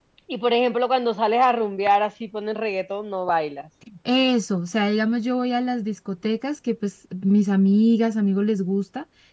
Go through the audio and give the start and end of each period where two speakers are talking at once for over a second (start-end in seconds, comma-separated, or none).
none